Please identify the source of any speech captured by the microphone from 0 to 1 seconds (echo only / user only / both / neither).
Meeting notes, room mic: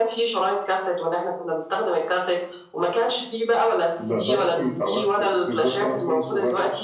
echo only